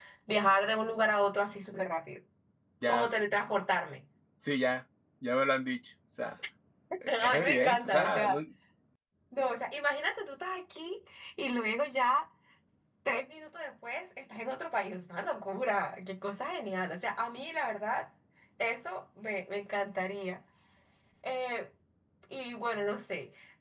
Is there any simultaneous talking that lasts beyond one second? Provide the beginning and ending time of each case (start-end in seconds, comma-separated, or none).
7.1-8.4